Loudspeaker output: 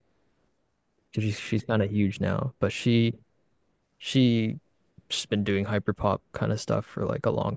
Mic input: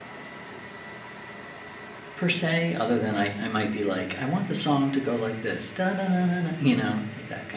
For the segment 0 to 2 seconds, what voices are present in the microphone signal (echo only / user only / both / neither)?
neither